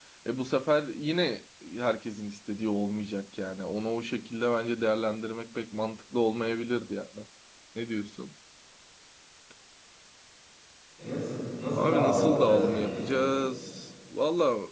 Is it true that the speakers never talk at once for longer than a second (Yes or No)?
No